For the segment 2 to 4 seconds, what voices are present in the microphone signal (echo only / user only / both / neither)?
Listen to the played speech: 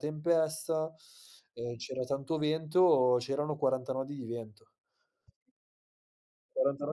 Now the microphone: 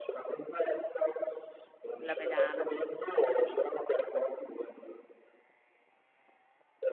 both